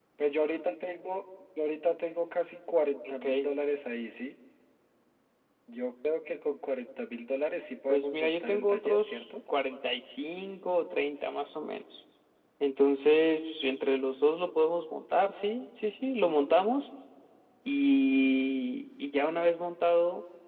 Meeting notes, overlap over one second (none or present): present